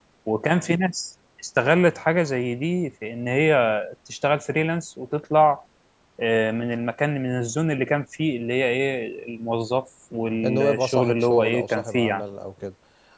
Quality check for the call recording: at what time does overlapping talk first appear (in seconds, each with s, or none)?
10.4 s